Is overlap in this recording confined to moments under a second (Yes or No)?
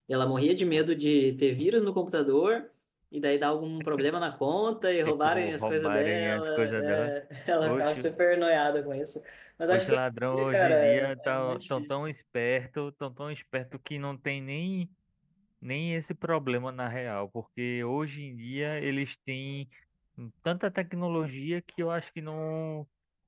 No